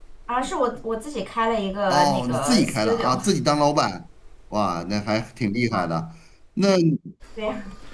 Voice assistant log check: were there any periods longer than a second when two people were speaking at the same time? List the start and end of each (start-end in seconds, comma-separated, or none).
1.9-3.2